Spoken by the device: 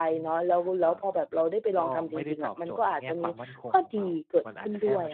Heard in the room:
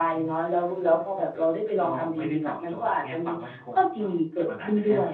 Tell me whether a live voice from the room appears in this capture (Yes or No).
No